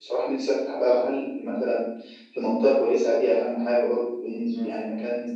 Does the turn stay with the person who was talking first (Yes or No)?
No